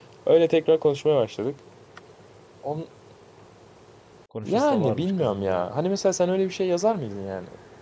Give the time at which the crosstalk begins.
4.4 s

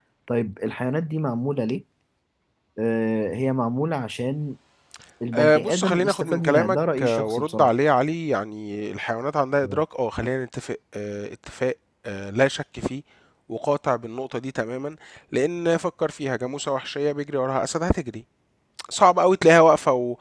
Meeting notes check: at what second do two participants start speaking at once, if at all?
5.3 s

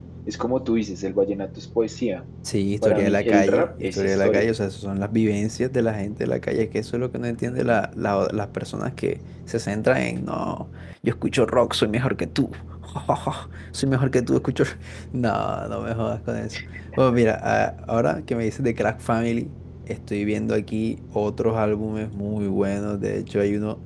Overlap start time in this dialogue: 2.8 s

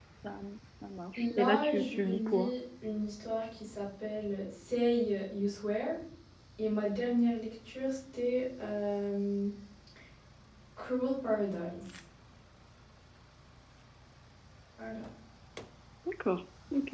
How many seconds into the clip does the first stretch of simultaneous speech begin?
1.1 s

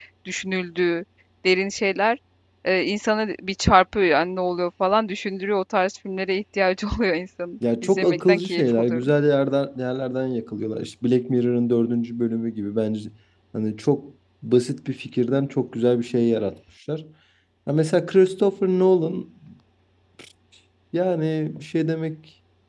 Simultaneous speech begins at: 7.6 s

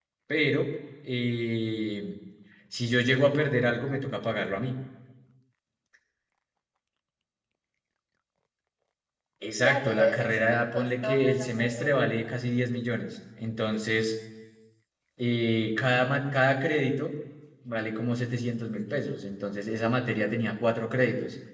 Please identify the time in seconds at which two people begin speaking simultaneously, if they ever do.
9.6 s

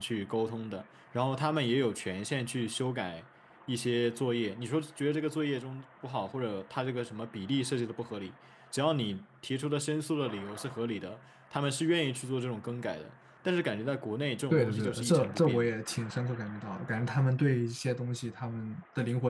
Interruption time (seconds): 14.5 s

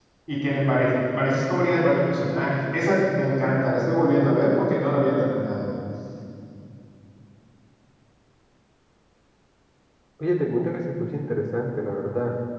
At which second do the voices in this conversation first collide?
none

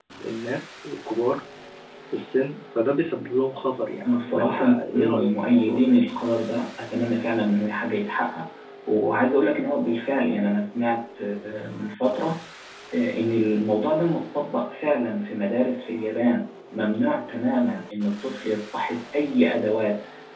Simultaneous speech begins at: 4.0 s

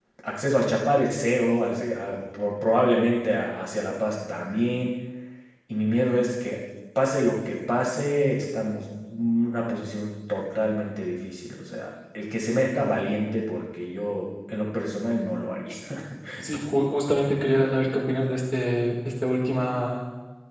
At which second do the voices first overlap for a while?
none

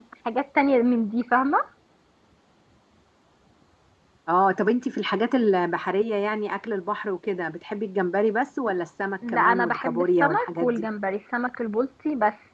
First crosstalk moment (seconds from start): 9.2 s

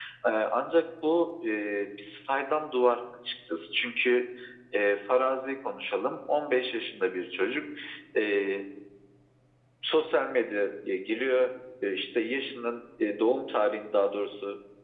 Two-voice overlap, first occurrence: none

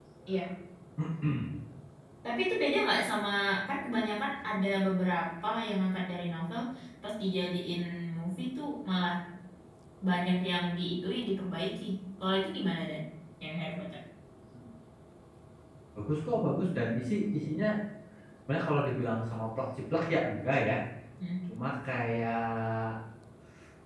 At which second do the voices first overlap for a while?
none

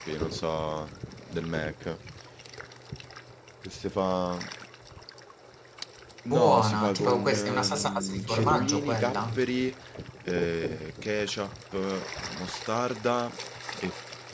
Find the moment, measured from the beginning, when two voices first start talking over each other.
6.3 s

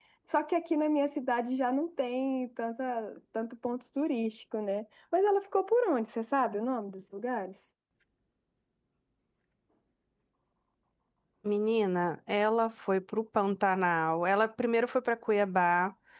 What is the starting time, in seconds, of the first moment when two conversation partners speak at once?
none

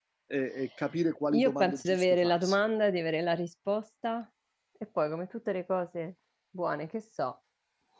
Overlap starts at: 1.2 s

